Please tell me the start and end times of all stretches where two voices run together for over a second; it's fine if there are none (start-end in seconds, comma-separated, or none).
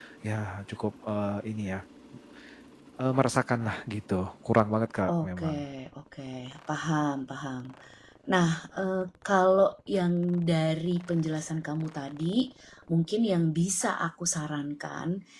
none